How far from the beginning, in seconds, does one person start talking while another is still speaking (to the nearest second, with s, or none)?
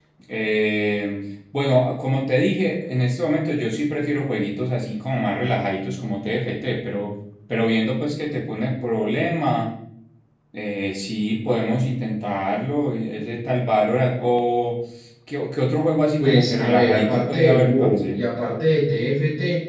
16 s